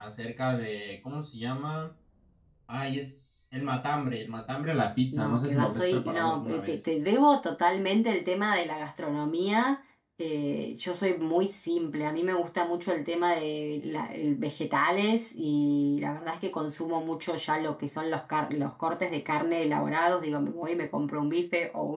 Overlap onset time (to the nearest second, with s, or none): 5 s